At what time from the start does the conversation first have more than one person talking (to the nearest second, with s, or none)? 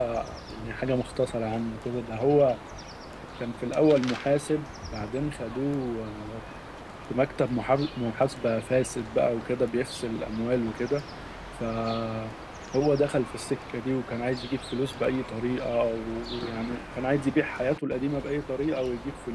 none